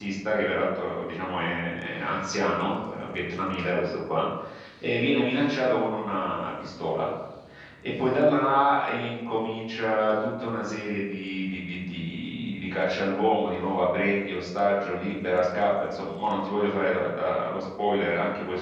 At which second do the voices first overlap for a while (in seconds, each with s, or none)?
none